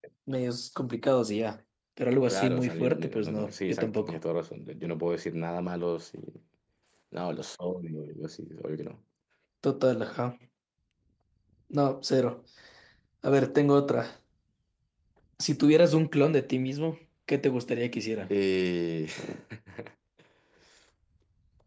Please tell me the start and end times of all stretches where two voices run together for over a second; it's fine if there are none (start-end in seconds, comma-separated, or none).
2.3-4.2